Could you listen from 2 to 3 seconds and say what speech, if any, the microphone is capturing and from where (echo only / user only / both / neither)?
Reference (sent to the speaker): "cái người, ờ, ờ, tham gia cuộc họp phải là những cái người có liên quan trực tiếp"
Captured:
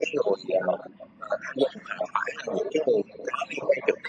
echo only